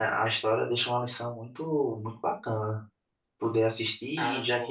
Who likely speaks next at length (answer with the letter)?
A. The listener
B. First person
B